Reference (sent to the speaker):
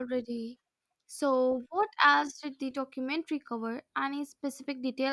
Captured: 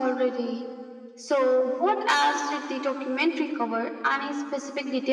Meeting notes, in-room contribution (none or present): none